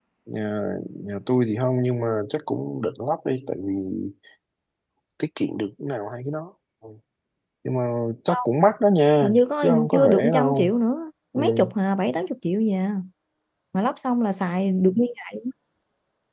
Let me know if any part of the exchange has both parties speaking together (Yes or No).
Yes